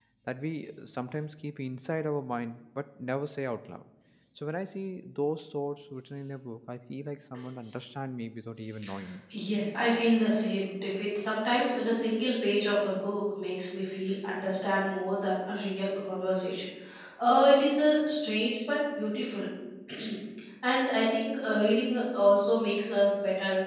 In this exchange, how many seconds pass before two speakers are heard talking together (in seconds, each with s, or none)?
none